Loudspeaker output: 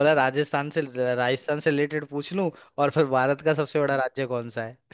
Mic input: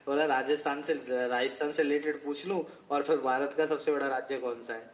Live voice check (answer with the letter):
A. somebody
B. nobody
B